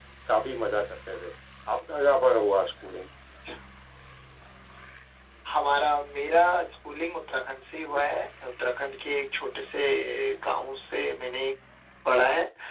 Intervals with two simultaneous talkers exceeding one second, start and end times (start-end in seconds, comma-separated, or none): none